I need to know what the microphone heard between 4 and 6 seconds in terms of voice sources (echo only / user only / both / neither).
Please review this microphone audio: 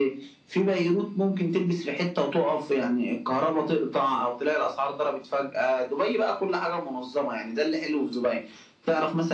echo only